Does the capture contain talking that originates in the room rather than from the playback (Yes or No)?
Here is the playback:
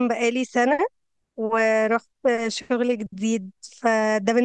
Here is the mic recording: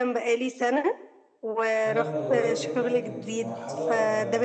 Yes